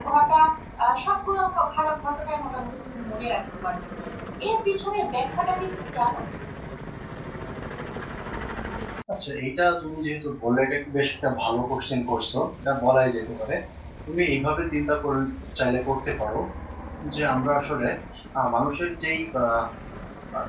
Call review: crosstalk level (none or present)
none